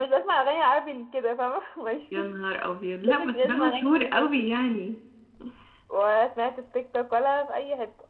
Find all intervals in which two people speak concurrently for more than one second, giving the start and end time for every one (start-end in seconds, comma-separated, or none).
3.0-4.3